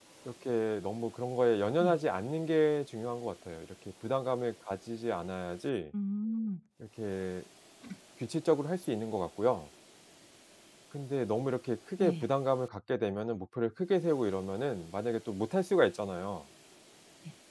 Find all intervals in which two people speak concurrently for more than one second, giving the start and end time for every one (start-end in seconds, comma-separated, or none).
none